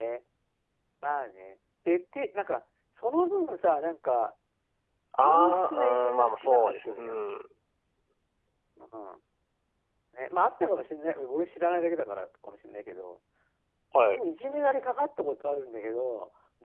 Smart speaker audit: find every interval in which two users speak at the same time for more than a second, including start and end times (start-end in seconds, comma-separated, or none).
5.2-7.0